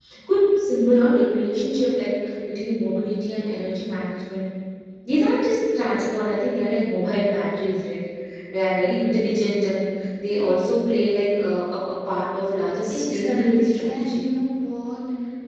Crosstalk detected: Yes, from 12.9 s

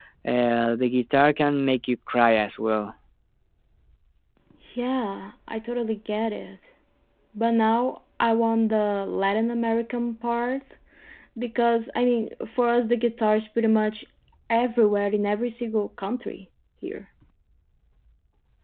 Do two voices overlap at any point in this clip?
No

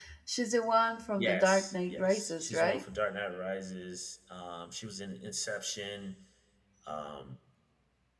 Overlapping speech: Yes, from 1.2 s

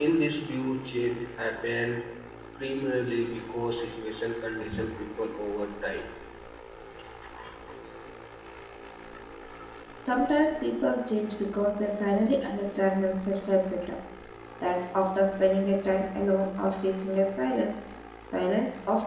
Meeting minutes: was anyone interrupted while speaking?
No

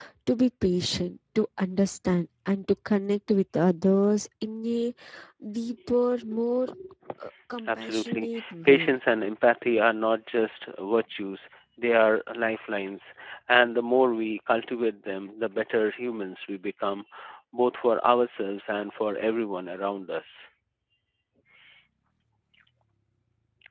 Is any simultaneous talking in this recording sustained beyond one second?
Yes, from 7.7 s

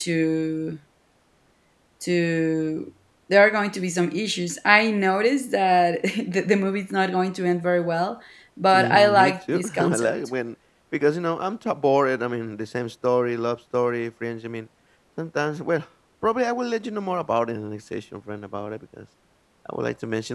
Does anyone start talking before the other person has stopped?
Yes, from 8.7 s

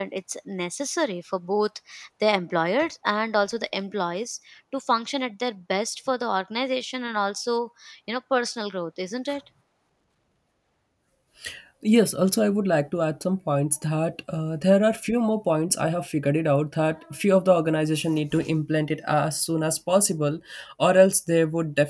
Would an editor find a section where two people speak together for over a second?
No

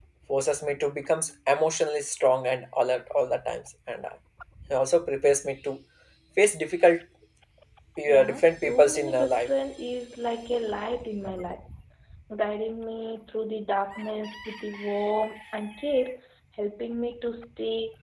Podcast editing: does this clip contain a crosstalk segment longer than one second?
Yes, from 8.1 s

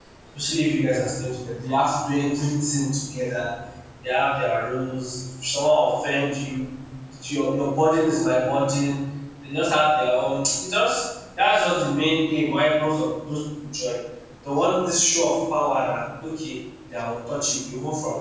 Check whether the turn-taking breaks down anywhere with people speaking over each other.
No

